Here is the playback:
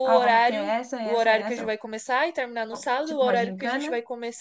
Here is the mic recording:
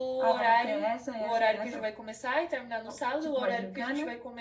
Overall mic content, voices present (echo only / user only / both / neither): echo only